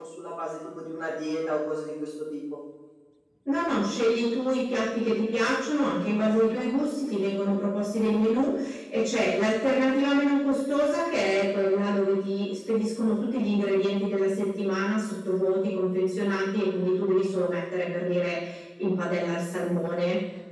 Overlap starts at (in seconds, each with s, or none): none